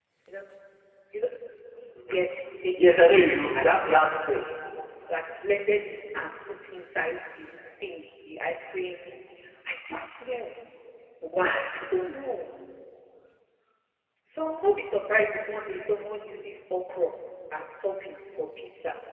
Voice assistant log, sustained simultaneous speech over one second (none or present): present